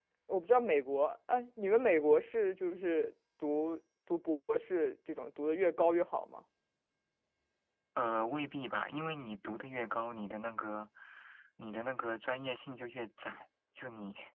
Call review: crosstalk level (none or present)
none